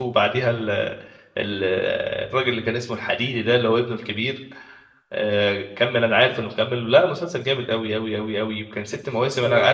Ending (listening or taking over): listening